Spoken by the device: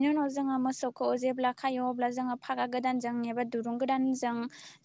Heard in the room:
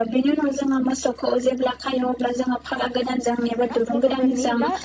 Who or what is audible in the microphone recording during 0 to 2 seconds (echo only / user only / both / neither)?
echo only